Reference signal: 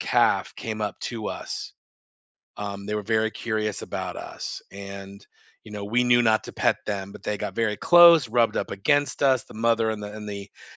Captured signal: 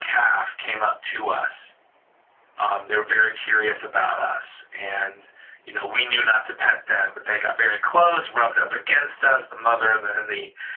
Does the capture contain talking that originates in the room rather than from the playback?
No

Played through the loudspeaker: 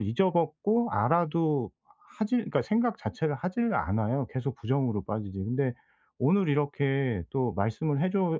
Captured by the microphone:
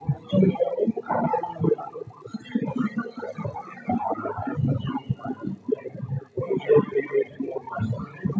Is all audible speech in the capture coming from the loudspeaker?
Yes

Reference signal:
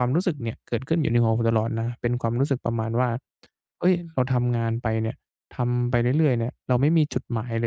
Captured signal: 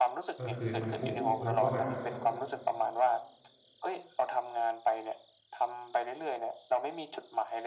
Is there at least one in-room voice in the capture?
Yes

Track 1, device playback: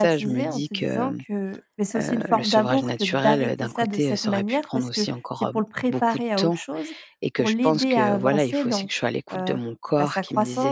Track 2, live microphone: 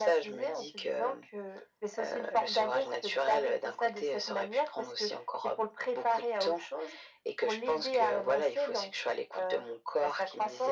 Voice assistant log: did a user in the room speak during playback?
No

